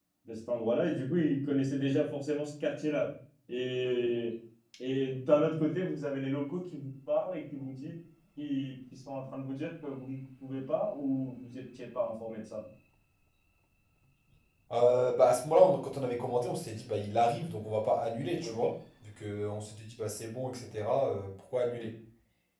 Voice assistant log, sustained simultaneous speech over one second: none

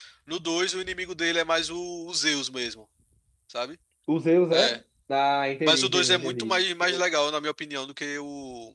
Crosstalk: present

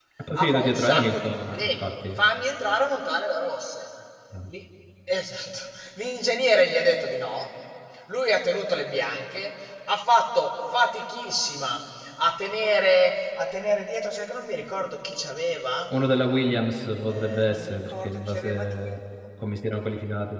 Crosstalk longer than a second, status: present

